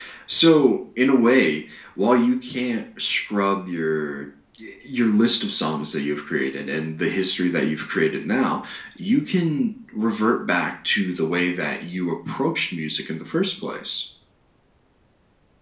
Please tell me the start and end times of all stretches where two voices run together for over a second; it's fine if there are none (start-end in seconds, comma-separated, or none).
none